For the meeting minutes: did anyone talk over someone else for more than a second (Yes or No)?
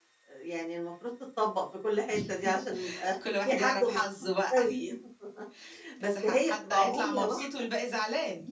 Yes